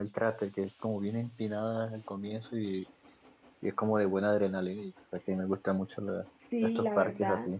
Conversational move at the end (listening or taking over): taking over